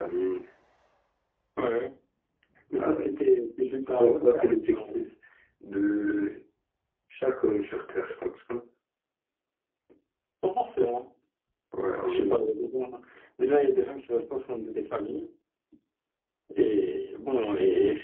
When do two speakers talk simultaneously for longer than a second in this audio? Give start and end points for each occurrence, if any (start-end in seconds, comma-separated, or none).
3.6-5.0